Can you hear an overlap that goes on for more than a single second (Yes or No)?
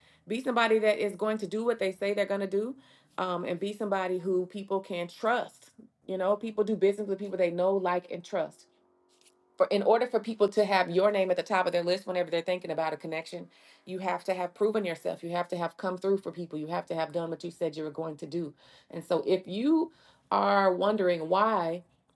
No